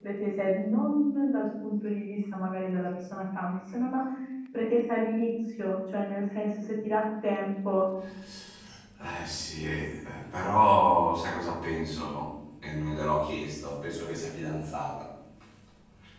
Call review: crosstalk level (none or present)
none